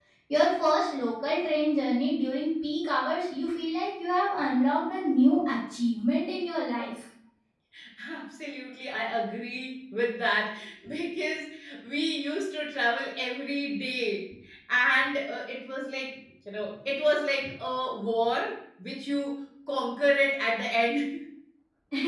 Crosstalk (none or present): none